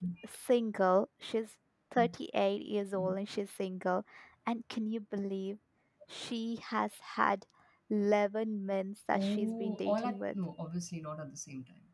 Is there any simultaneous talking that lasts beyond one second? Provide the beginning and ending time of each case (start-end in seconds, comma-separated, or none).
9.1-10.3